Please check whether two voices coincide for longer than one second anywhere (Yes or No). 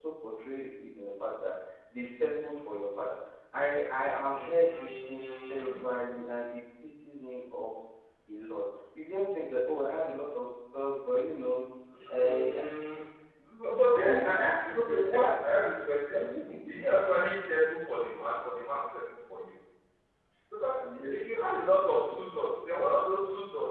Yes